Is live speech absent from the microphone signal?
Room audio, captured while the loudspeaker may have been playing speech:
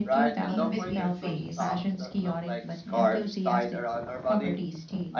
No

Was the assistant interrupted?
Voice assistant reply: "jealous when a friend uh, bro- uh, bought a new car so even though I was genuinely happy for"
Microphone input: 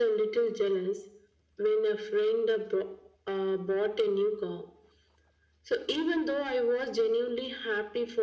No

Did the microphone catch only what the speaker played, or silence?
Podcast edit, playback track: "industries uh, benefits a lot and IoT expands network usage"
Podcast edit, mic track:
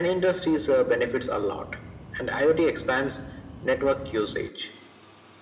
Yes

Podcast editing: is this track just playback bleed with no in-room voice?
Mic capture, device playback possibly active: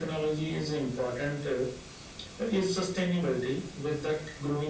Yes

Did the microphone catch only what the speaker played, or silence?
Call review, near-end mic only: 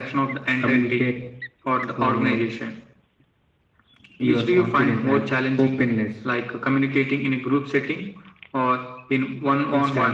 Yes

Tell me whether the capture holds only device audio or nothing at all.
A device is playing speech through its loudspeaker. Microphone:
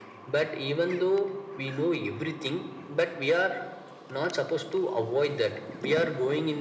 Yes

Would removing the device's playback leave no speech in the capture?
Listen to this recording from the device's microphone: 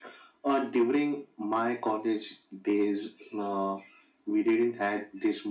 Yes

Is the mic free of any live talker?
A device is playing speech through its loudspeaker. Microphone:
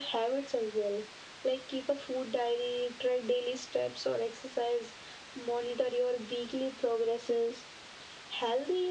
Yes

